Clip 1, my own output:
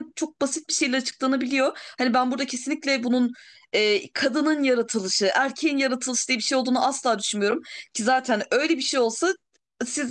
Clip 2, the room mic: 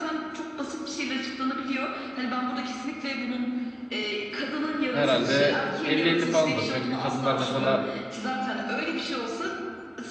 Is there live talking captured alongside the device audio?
Yes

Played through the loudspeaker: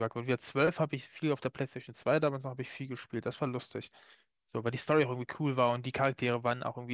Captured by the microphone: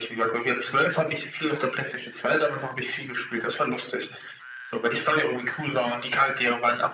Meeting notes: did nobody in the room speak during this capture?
Yes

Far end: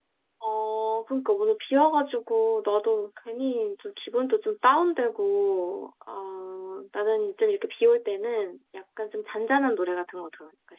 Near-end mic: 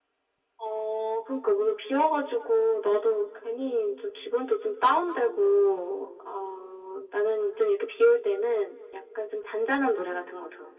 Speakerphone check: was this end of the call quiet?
Yes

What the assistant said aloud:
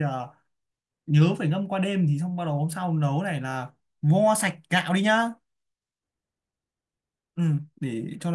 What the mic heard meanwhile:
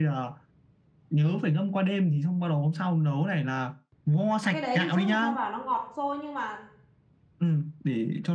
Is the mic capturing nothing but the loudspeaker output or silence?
No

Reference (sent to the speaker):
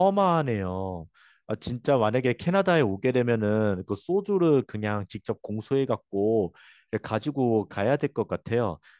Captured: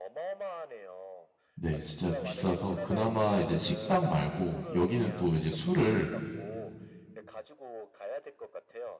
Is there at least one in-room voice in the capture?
Yes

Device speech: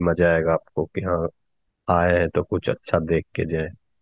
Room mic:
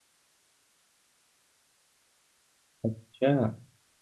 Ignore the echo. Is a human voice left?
Yes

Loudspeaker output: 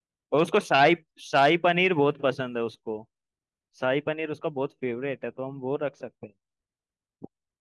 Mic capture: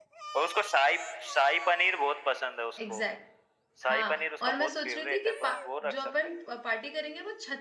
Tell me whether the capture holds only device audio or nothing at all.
No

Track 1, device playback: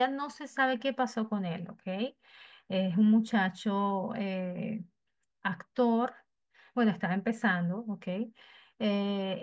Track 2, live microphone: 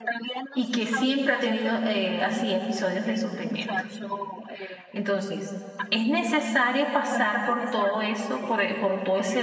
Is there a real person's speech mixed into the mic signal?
Yes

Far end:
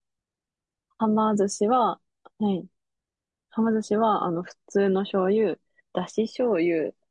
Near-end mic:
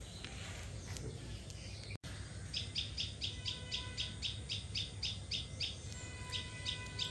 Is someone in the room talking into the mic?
No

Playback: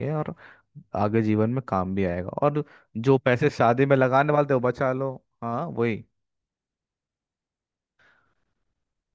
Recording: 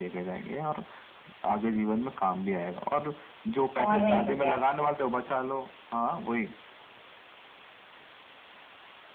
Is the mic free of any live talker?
No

